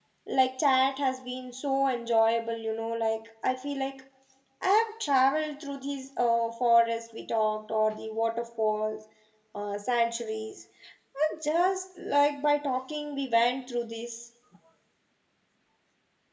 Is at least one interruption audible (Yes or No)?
No